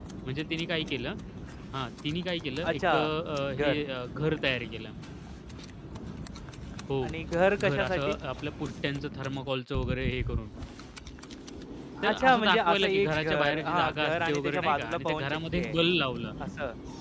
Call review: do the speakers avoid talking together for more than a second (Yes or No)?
No